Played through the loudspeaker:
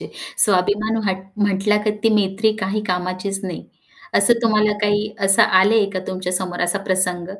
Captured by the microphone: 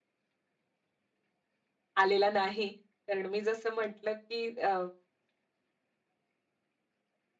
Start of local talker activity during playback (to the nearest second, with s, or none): 2 s